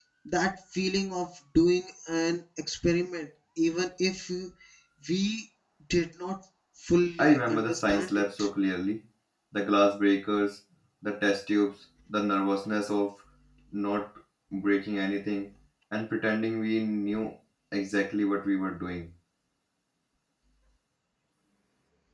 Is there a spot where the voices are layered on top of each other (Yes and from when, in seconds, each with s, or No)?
Yes, from 7.2 s